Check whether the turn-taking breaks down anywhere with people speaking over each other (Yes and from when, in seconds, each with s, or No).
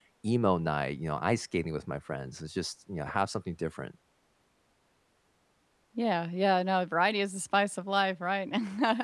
No